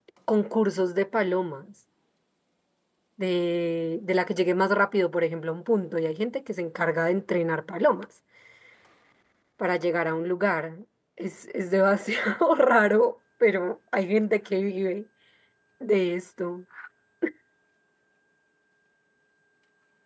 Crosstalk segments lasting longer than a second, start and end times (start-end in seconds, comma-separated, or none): none